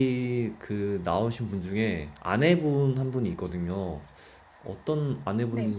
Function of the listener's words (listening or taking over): listening